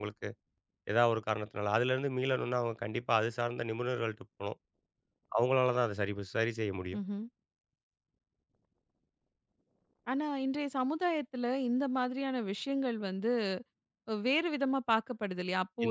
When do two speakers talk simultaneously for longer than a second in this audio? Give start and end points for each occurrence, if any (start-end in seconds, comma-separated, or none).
none